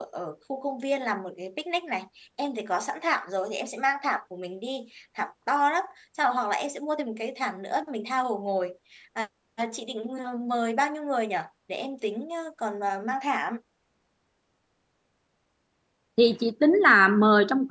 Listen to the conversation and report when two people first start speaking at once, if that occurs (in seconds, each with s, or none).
none